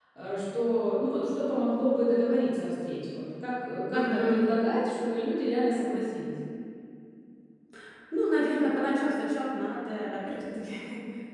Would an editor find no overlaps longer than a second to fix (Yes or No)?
Yes